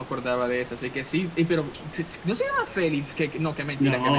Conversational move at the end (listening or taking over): taking over